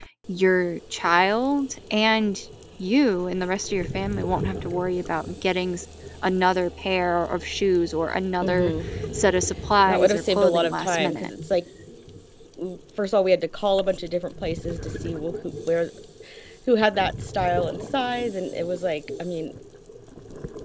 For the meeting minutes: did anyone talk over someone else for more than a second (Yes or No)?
Yes